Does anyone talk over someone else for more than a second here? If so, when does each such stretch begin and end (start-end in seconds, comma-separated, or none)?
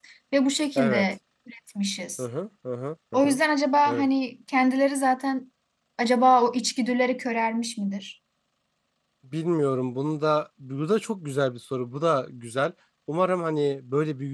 none